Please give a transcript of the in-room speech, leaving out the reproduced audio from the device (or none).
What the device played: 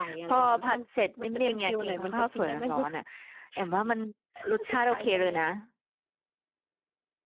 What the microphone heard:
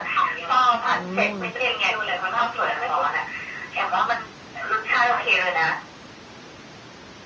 อ๋อ